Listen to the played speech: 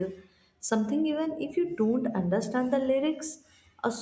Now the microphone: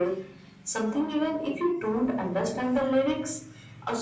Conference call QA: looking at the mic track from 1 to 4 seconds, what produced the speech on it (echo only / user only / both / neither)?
echo only